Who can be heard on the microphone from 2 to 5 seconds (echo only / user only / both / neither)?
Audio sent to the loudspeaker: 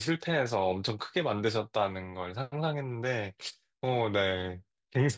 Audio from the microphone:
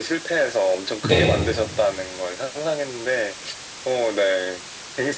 echo only